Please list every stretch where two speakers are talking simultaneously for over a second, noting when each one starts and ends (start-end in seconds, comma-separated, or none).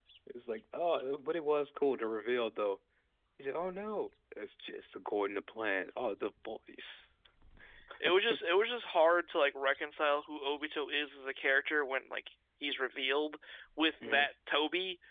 none